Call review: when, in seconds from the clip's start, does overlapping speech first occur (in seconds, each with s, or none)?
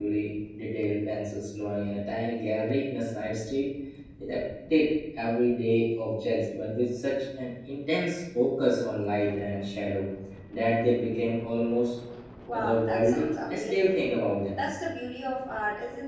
12.5 s